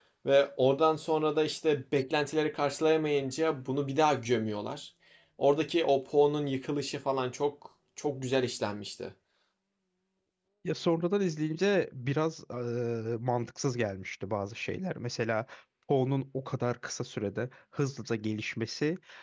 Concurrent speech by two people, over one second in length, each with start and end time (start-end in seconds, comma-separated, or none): none